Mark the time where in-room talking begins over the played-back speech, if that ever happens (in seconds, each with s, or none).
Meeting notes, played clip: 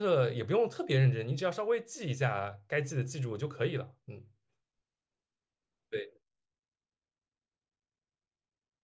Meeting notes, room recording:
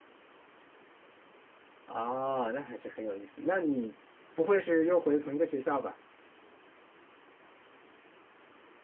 1.8 s